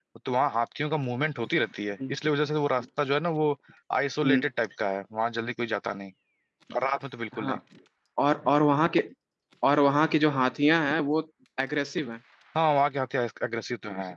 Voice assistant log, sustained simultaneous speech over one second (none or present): none